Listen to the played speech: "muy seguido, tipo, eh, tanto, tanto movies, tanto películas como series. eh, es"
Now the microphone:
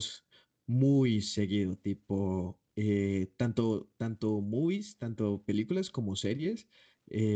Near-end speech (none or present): none